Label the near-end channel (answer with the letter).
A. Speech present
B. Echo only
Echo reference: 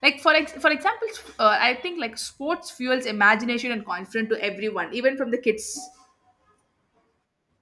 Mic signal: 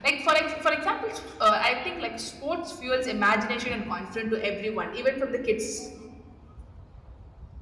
B